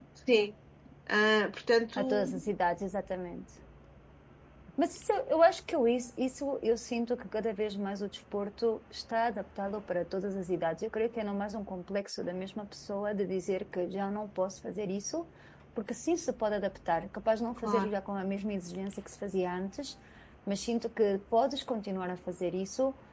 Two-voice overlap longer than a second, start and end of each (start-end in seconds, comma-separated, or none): none